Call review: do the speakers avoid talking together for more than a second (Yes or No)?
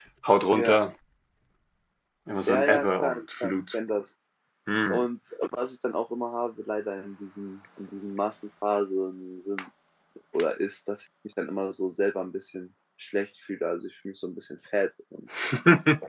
No